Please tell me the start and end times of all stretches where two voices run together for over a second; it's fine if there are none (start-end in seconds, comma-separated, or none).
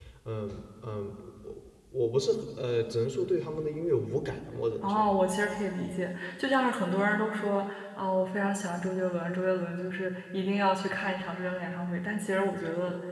none